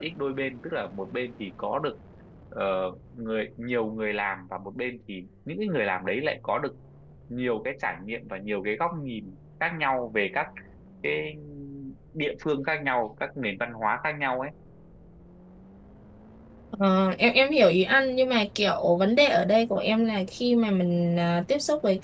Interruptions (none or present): none